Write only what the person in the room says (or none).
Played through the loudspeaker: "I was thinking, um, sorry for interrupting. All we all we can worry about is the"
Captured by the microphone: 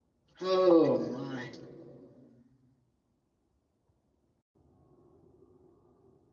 Oh my.